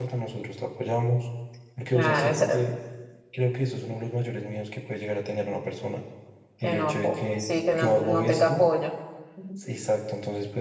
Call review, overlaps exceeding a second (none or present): present